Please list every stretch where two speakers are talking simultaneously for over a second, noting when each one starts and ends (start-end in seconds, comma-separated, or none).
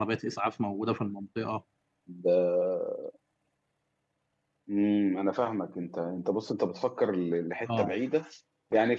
none